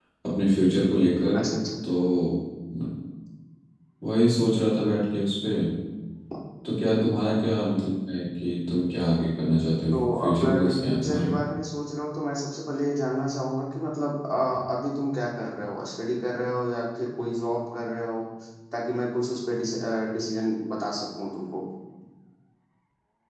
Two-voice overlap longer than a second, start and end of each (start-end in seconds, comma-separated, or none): 9.9-11.3